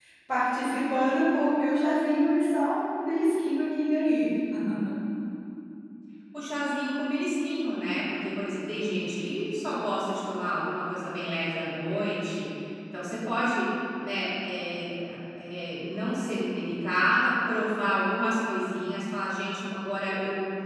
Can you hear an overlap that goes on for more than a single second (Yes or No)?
No